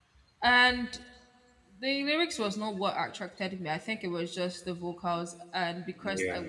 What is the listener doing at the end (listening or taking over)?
listening